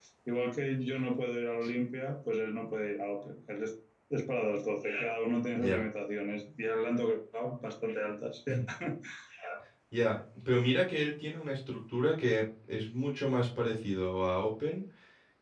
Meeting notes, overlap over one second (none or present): none